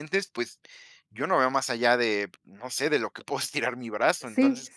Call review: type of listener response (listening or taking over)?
taking over